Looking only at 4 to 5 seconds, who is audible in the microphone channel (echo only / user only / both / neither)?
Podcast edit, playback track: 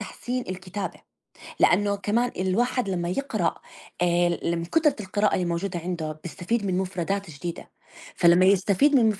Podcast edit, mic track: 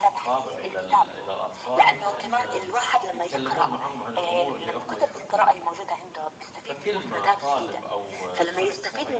both